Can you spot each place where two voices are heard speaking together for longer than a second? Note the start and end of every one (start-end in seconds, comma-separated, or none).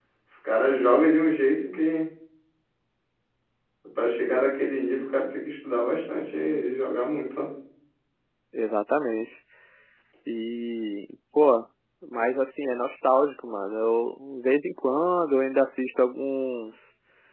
none